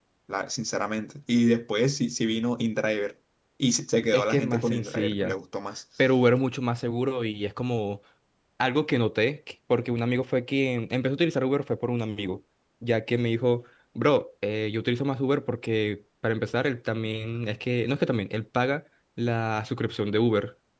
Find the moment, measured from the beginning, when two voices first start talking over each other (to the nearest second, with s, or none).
4 s